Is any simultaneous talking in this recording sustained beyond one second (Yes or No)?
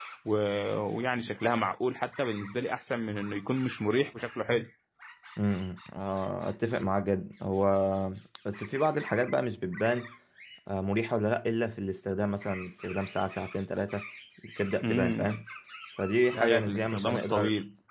Yes